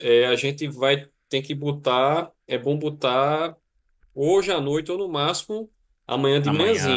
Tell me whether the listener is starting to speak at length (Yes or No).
No